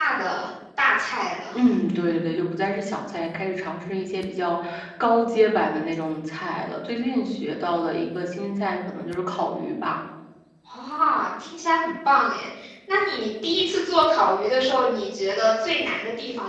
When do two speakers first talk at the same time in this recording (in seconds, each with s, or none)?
none